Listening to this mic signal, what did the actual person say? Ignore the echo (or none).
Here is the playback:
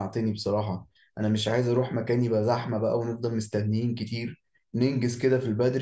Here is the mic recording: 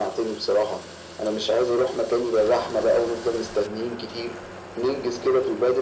none